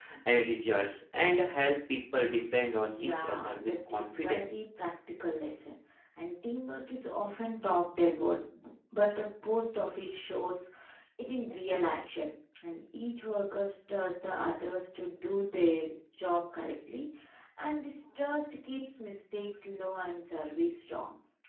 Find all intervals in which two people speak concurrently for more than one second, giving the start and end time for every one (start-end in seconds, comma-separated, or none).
2.8-4.5